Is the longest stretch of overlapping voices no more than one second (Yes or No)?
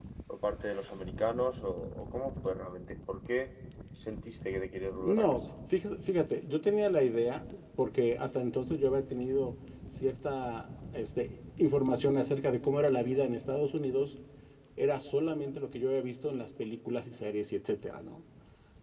Yes